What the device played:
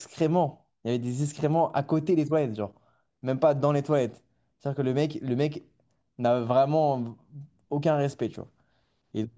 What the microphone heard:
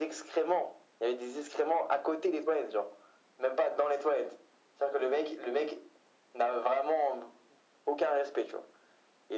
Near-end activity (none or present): none